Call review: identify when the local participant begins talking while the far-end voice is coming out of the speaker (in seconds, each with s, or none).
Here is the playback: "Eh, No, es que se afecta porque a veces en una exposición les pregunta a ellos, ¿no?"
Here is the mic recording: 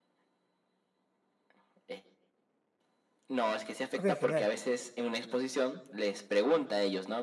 4.0 s